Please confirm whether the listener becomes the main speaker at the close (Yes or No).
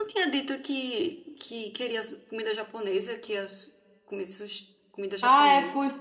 Yes